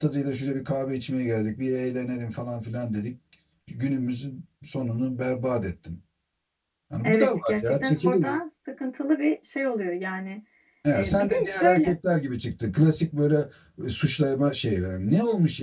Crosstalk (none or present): present